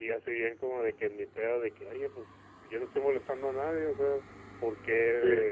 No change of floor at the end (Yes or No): Yes